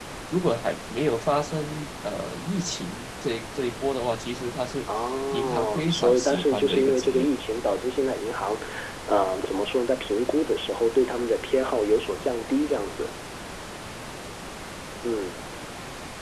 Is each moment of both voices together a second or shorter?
No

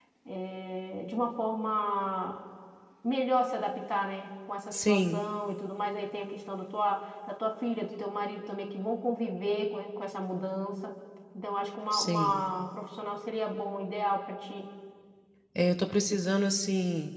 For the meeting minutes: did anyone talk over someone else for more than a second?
No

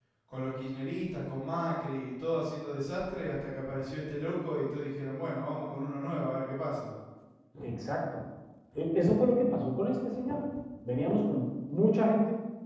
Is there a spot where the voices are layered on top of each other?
No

